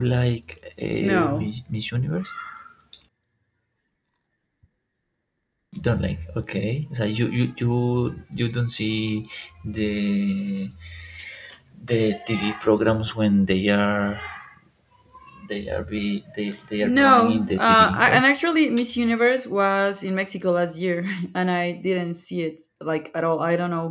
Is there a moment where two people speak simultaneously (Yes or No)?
Yes